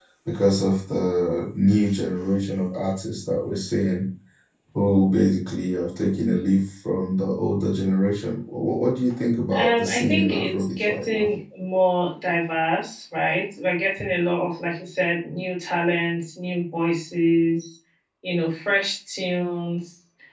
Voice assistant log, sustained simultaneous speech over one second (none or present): present